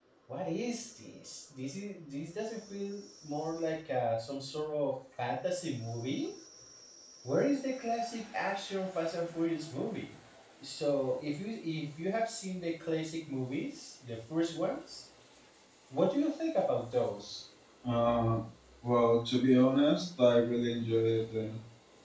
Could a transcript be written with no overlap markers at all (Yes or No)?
Yes